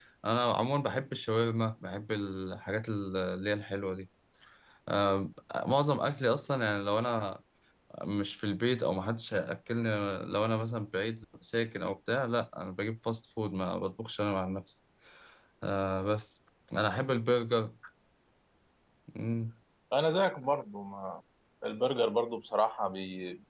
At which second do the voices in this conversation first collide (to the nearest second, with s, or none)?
none